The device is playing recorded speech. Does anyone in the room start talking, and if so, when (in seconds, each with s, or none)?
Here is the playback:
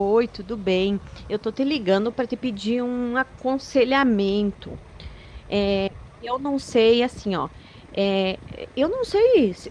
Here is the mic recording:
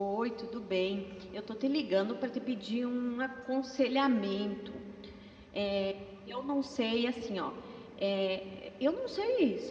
none